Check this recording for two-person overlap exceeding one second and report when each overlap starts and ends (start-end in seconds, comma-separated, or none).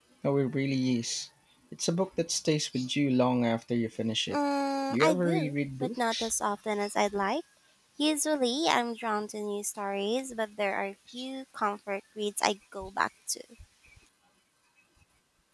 4.9-6.3